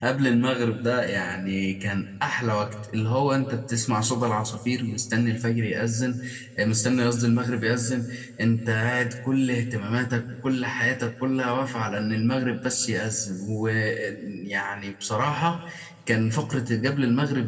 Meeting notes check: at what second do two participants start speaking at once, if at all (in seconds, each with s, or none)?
none